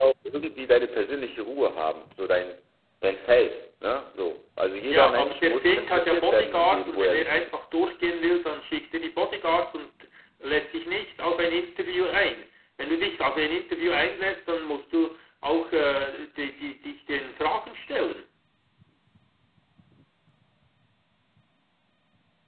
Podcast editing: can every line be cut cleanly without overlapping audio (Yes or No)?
No